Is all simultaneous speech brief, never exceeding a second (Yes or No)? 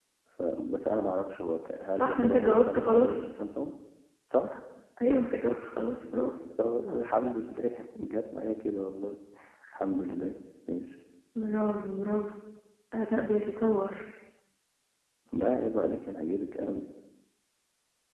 No